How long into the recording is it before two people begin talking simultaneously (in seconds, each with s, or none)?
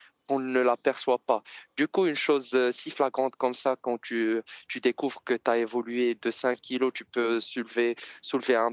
none